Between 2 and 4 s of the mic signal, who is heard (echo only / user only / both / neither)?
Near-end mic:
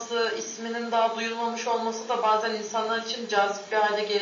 echo only